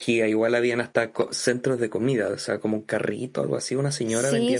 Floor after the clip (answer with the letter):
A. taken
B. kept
A